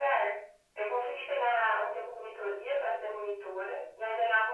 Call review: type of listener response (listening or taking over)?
listening